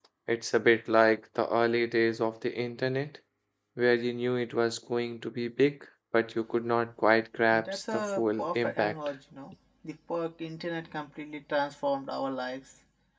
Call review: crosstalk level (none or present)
present